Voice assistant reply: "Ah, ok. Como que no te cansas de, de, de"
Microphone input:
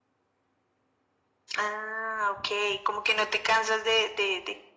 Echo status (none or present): present